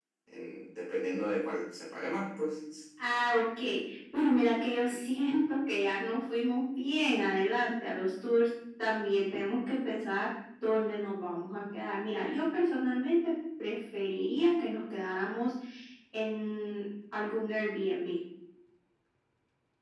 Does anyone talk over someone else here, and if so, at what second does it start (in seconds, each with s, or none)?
none